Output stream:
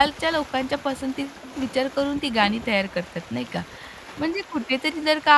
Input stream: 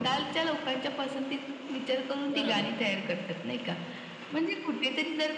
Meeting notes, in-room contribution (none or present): present